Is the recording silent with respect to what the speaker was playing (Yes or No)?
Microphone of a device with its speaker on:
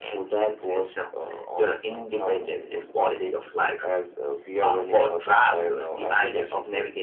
No